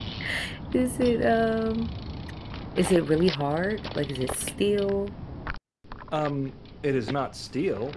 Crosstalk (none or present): none